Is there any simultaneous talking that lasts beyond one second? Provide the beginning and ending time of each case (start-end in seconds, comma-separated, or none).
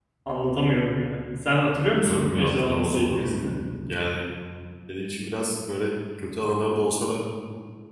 2.0-3.4